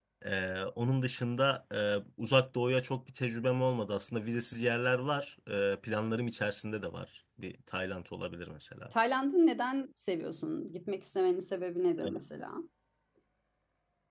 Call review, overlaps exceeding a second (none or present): none